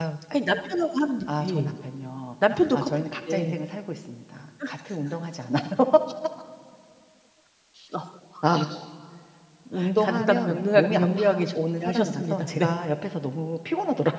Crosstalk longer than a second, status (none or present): present